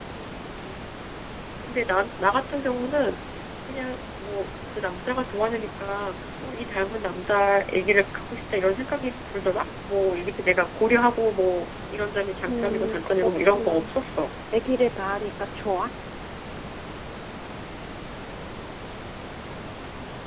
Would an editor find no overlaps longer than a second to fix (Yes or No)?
No